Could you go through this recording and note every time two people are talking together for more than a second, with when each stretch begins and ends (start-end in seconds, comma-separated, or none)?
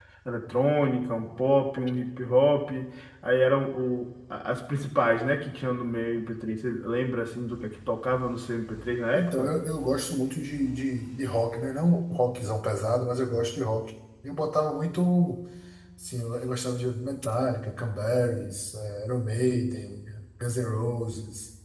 none